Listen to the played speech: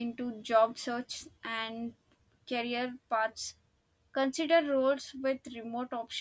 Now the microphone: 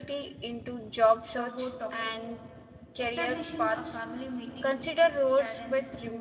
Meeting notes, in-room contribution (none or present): present